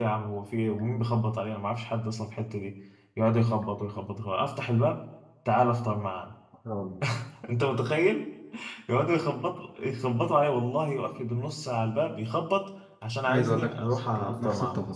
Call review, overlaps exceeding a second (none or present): present